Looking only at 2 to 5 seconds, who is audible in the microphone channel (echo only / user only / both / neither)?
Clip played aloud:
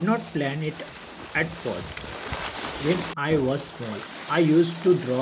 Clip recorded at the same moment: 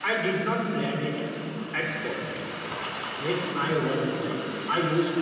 echo only